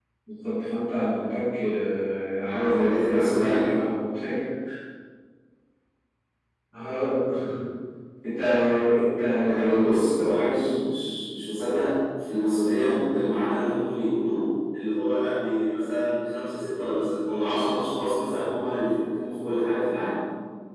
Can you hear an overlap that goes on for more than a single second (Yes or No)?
Yes